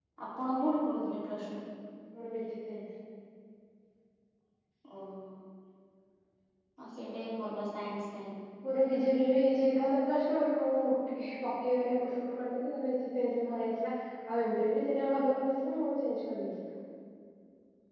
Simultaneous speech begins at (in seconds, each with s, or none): none